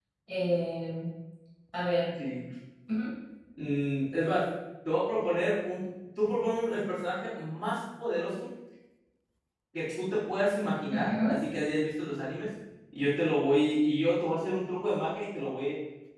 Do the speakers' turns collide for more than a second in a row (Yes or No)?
No